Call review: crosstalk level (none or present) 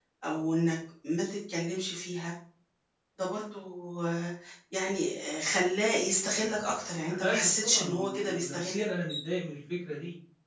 present